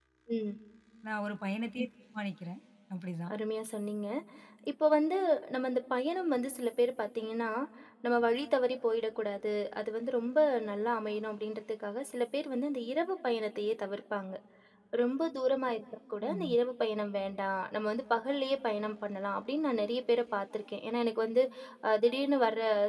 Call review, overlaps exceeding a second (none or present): none